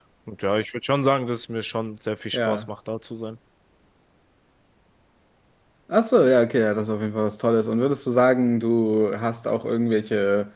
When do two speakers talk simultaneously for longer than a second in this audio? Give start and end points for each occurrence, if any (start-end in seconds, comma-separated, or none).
none